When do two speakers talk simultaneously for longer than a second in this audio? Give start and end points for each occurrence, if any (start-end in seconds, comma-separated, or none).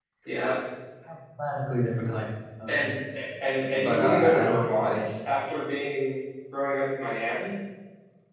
3.7-5.1